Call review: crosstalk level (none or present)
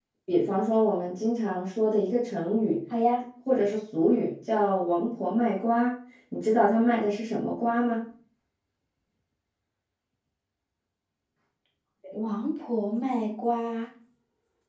none